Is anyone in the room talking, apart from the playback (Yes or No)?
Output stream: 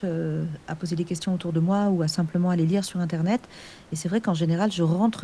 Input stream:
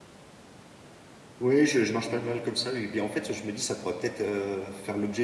Yes